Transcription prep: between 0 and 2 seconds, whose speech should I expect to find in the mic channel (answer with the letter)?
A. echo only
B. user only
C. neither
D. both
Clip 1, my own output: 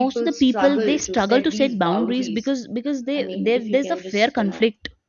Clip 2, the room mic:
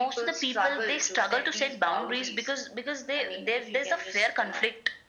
A